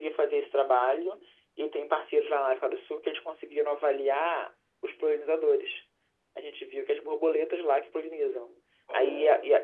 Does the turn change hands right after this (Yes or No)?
No